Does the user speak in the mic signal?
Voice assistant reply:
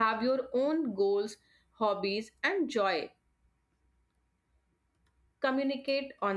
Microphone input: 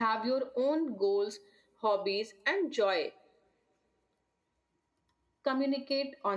No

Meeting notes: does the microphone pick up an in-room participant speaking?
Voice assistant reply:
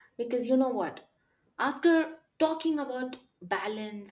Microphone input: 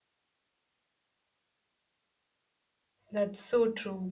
Yes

